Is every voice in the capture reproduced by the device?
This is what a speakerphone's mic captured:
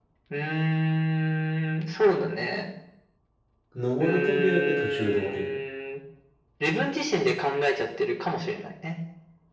No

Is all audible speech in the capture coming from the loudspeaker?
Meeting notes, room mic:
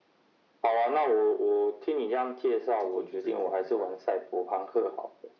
No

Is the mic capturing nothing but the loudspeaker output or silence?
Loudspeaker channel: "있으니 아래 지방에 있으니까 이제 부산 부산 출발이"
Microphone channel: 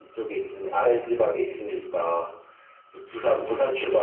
Yes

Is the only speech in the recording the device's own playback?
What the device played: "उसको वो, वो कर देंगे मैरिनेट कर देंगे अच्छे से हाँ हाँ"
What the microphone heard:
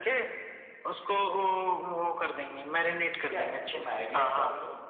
No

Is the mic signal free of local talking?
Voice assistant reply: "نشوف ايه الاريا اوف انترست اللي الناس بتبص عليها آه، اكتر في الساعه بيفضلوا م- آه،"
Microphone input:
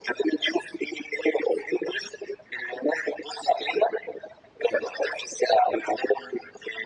Yes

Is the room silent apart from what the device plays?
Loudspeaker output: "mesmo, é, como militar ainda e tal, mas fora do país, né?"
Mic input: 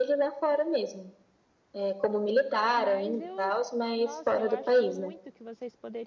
No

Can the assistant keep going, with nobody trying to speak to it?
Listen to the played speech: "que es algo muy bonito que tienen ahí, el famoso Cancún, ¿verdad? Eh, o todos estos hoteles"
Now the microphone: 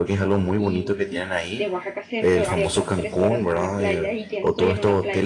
No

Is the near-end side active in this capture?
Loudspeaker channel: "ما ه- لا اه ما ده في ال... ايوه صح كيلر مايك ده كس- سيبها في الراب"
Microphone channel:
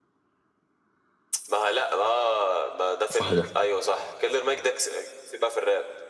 Yes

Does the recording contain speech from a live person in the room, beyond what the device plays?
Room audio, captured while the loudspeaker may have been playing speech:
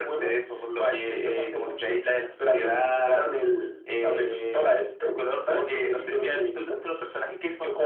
No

